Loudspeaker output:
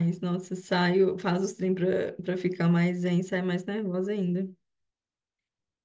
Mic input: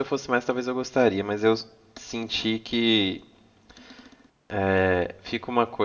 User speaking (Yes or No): Yes